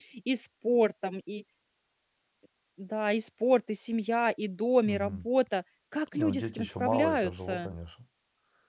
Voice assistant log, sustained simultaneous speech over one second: present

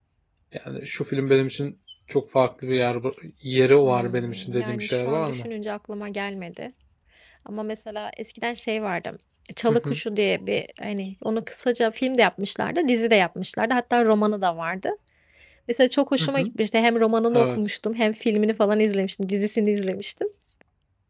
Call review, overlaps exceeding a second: present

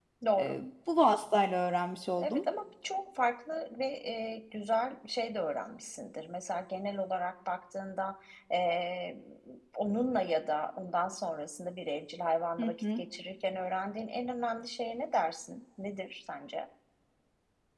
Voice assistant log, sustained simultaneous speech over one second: none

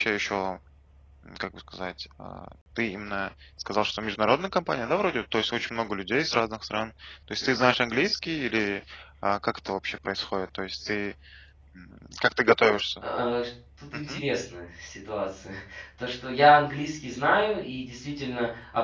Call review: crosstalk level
none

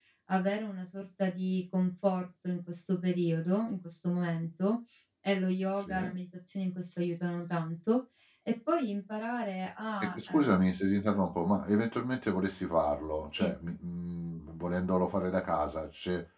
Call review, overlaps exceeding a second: none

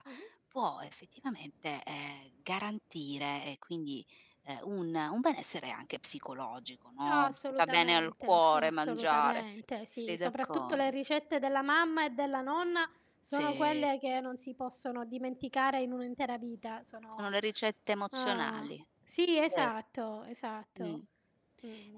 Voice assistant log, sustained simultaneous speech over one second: present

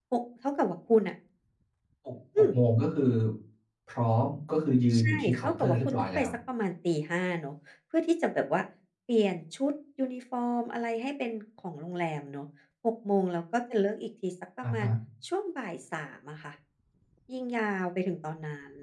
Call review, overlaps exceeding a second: present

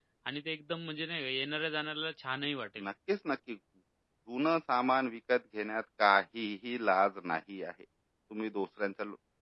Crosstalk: none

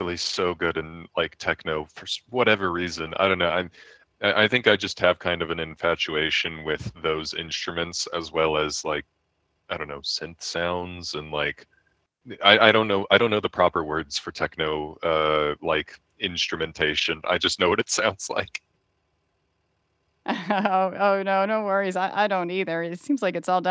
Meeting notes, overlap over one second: none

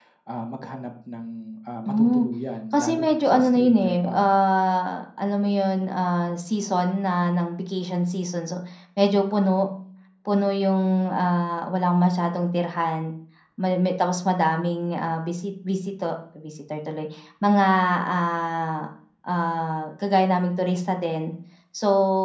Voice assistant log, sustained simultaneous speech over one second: present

